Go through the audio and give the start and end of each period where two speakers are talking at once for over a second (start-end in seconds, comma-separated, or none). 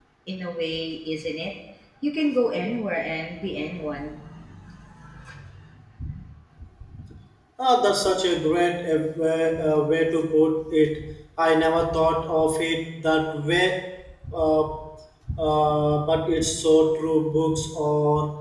none